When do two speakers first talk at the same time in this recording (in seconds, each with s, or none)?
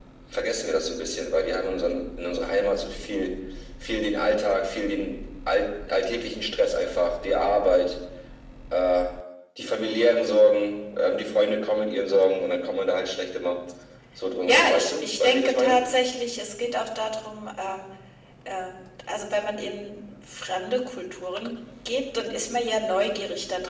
14.5 s